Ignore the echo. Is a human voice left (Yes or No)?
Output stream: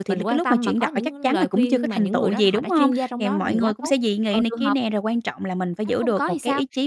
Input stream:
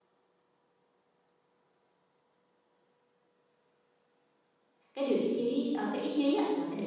Yes